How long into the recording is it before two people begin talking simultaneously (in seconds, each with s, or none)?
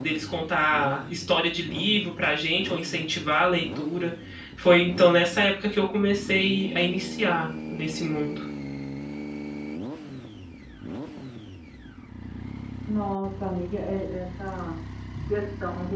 none